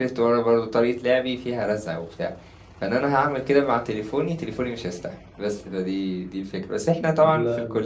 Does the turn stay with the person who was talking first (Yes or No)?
Yes